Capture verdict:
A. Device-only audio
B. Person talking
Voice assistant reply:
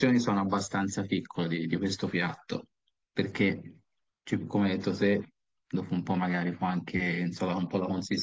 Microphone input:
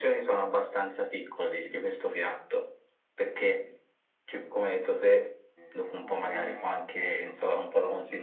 B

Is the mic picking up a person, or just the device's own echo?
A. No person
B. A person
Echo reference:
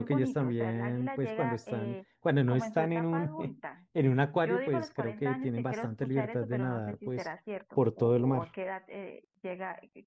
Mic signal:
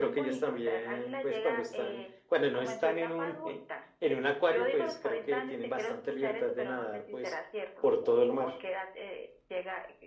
A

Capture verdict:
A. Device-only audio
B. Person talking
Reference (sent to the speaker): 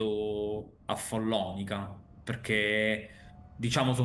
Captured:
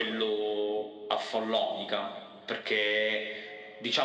A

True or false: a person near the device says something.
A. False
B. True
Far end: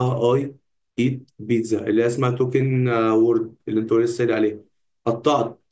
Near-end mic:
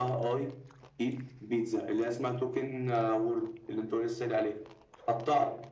A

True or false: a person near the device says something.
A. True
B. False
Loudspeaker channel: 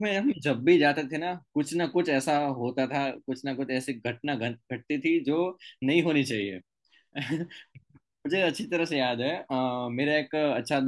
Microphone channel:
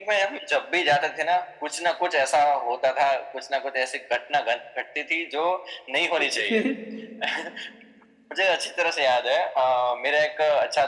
A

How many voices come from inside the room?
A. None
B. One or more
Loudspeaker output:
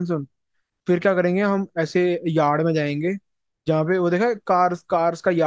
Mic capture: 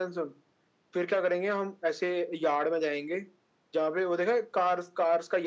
A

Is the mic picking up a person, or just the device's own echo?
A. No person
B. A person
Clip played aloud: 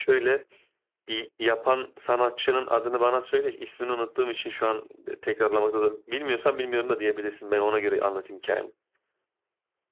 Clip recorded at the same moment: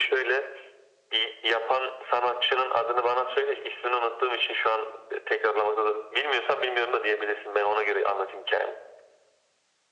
A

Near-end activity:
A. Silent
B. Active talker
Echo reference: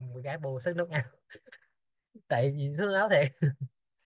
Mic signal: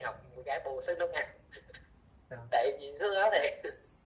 B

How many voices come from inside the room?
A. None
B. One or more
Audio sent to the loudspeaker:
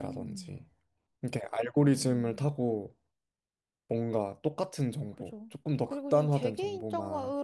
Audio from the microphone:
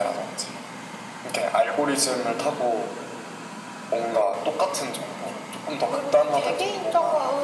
A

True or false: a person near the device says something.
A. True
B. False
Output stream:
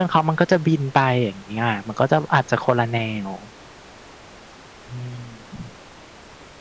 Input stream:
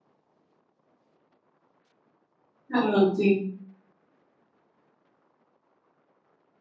A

